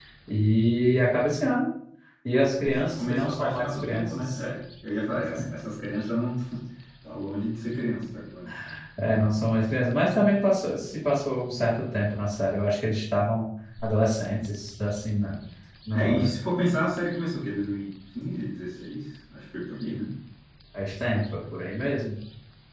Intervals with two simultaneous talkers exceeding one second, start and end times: 2.6-4.4

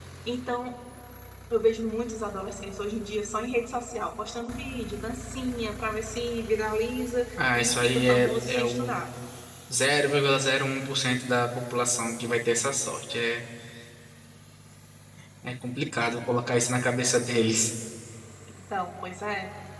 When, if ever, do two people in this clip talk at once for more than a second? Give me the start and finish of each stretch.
7.5-9.0

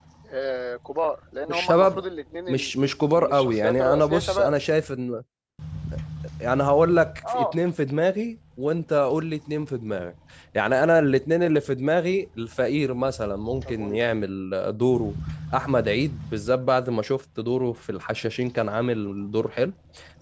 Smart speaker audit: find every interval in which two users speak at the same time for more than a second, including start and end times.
3.1-4.5

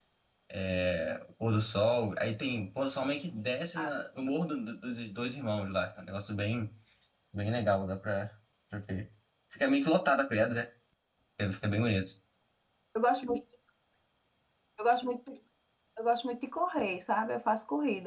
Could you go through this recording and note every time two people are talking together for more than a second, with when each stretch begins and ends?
none

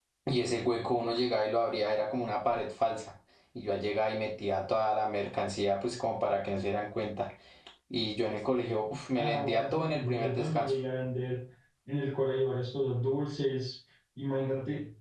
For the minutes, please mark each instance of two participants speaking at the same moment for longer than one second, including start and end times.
9.2-10.8

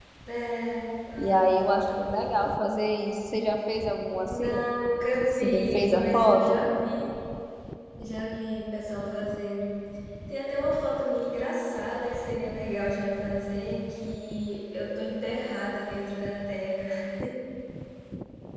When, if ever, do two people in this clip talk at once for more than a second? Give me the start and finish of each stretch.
5.3-6.6

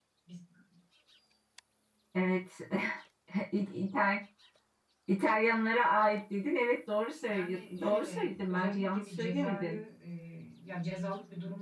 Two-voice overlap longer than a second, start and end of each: 7.3-9.8

